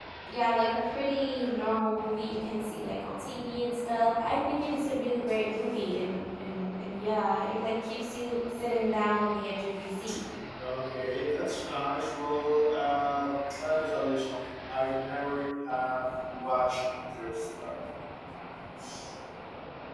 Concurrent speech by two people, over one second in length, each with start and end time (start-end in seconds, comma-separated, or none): none